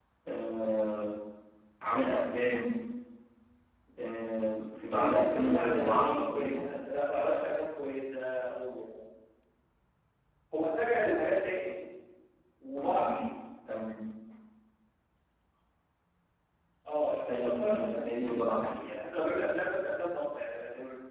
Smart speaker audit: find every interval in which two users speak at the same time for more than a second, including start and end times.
4.9-6.7, 17.3-18.9

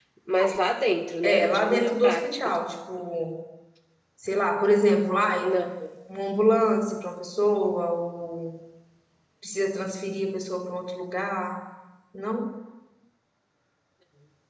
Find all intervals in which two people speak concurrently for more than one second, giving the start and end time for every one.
1.2-2.6

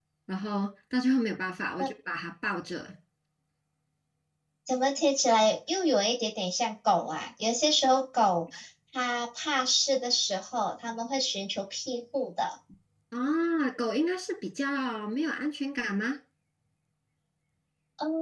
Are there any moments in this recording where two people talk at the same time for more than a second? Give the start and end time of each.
none

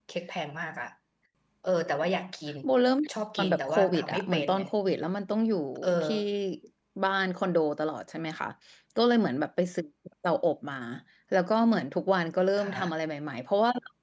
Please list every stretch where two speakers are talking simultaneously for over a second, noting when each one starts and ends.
3.4-4.6

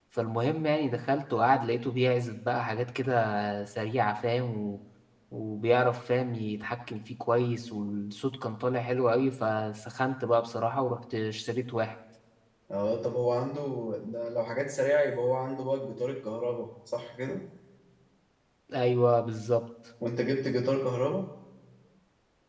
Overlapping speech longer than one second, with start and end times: none

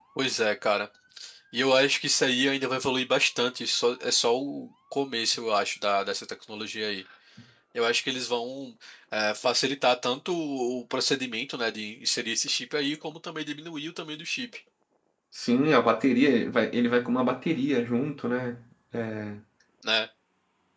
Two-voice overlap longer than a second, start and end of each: none

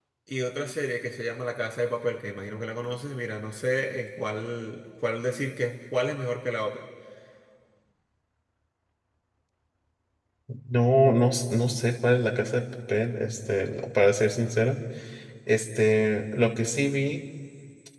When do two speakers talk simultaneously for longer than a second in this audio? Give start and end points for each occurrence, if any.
none

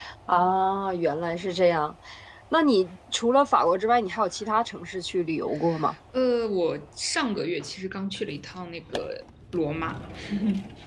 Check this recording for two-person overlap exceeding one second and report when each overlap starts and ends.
none

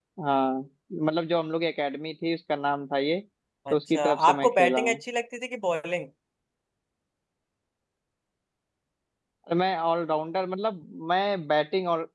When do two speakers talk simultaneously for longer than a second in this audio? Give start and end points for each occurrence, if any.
3.7-5.0

